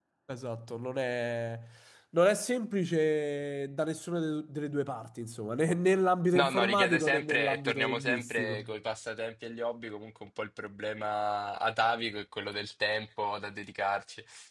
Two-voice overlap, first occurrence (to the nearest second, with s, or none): 6 s